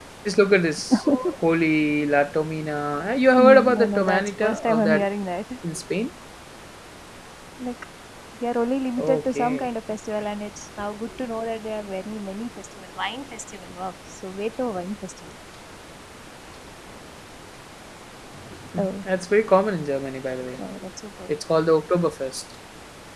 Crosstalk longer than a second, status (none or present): present